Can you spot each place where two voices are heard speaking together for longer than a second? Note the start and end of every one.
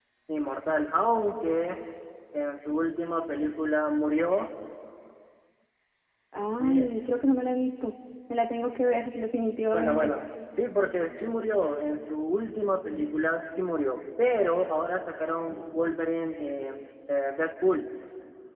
none

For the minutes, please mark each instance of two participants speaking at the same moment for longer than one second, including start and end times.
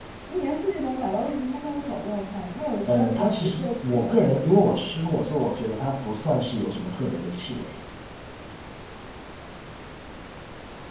2.9-4.3

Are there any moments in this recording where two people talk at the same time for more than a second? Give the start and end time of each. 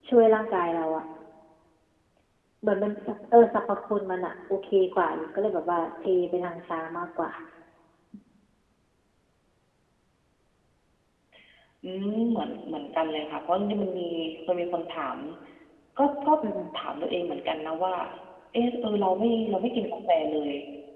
none

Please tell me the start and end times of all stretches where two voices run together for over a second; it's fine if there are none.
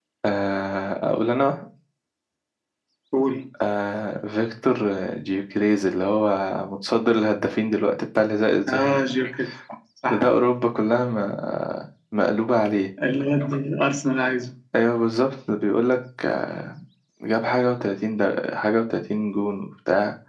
none

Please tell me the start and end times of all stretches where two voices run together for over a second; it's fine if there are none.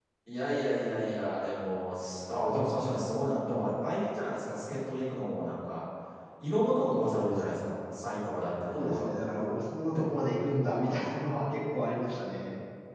none

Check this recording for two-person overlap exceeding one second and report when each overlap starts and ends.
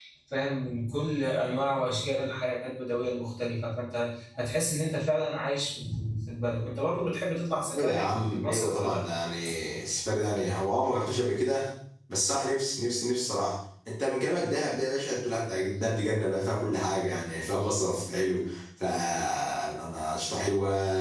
7.8-9.0

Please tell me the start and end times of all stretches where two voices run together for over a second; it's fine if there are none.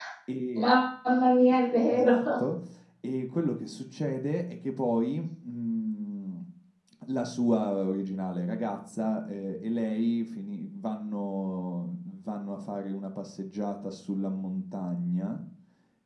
none

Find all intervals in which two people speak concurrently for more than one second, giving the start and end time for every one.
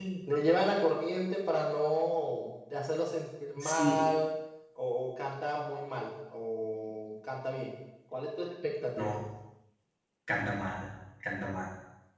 none

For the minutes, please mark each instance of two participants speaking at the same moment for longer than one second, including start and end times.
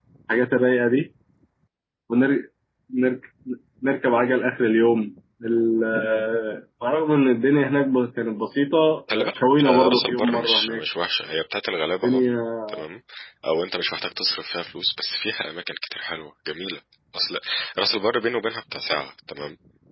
9.1-10.8

